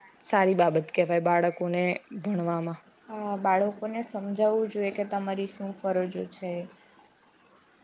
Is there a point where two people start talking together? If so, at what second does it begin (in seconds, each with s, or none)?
none